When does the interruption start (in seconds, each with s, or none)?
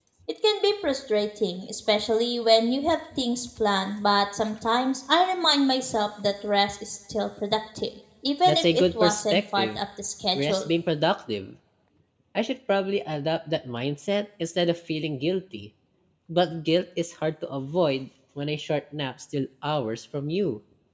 8.4 s